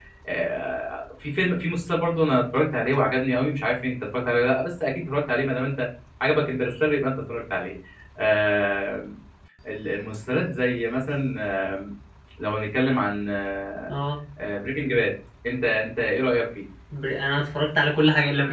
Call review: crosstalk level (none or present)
none